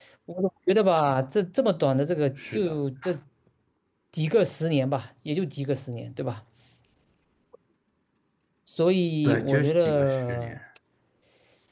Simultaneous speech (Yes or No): Yes